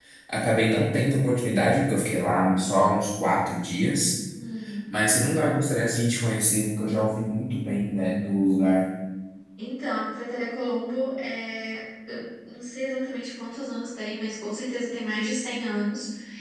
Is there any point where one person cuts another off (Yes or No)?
No